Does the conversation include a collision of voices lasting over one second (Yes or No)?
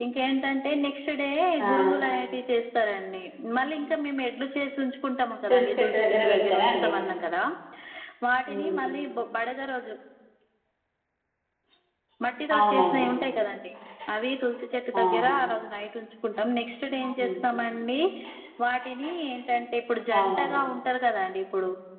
Yes